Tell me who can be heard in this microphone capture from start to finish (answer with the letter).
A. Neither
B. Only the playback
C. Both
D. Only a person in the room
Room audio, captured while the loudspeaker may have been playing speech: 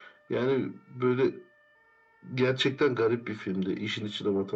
B